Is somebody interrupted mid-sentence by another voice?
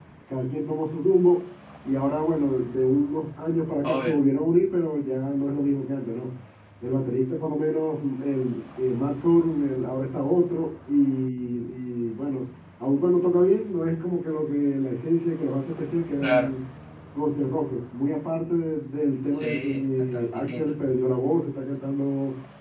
Yes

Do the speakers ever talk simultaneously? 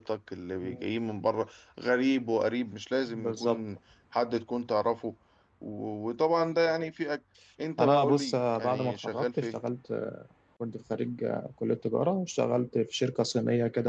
Yes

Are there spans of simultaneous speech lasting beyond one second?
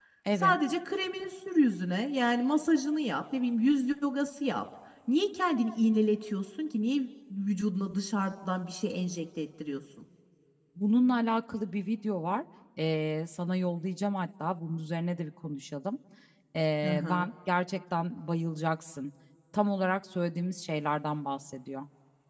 No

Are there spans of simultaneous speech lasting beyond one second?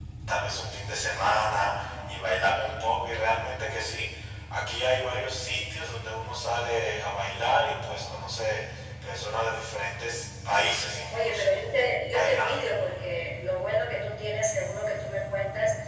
No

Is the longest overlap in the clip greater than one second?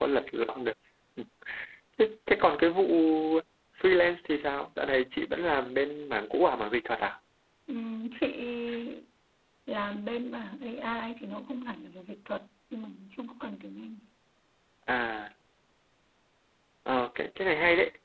No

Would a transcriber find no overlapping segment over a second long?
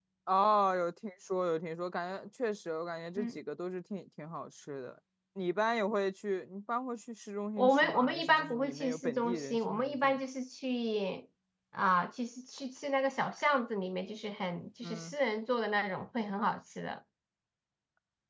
No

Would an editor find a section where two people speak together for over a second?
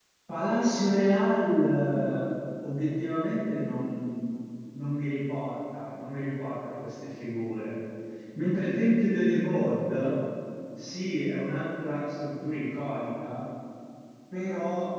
No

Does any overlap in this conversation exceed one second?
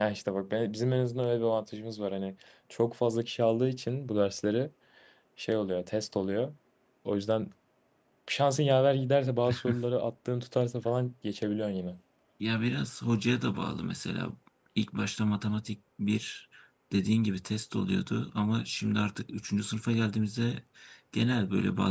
No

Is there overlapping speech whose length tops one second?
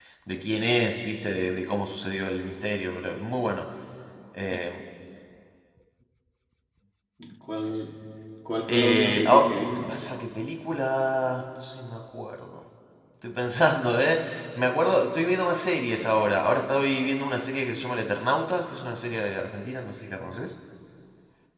Yes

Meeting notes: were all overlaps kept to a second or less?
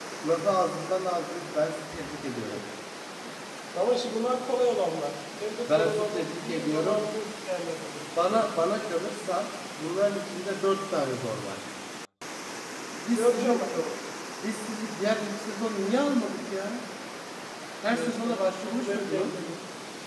No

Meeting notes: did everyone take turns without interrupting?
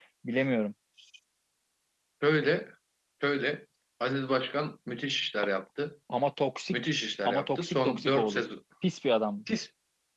No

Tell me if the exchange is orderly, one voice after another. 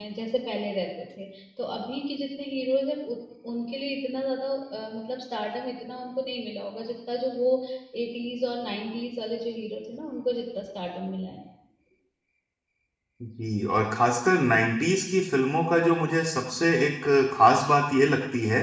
Yes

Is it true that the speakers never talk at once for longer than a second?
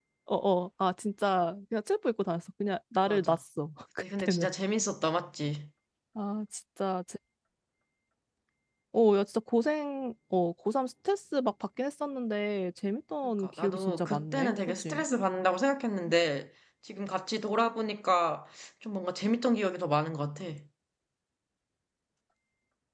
No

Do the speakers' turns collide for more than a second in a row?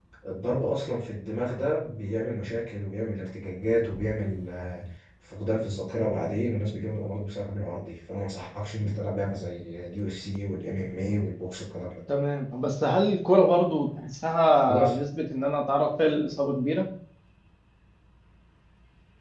No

